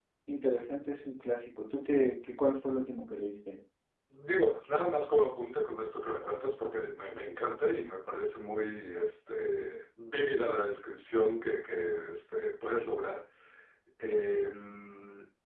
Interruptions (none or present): none